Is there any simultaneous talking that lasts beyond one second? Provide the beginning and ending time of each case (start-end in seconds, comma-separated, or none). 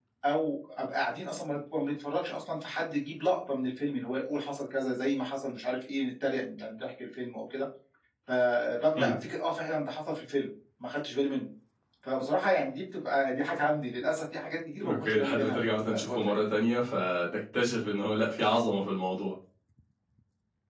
14.8-16.4